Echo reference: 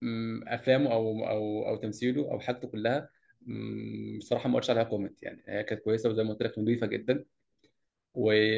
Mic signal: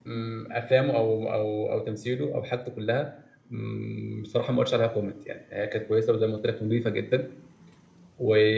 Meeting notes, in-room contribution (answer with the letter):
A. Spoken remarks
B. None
B